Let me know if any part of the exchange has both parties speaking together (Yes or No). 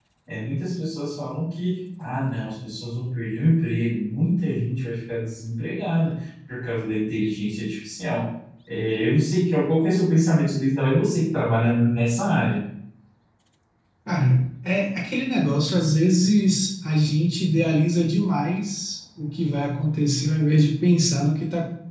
No